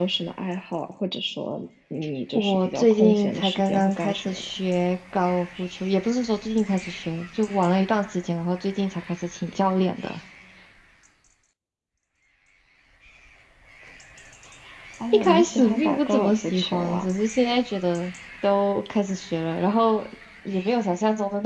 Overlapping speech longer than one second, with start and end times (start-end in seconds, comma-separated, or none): 2.4-4.5, 15.1-17.1